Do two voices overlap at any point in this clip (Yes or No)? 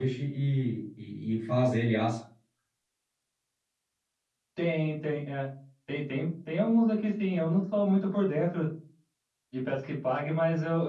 No